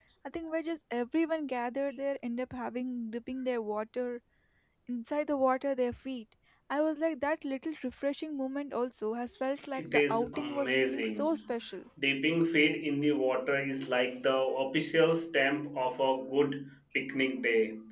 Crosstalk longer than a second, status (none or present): present